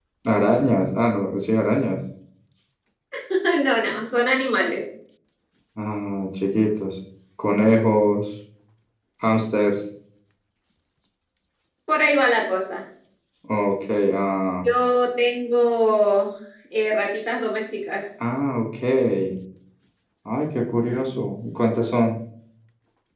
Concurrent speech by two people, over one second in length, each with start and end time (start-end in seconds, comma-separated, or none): none